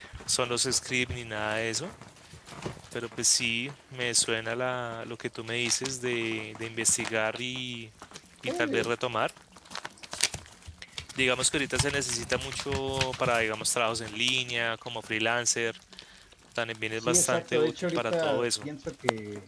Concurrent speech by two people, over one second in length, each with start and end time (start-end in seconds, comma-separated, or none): 17.0-18.7